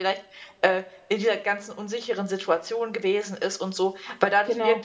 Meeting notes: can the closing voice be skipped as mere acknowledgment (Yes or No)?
Yes